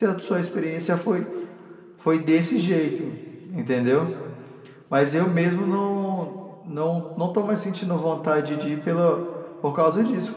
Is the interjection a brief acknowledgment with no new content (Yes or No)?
No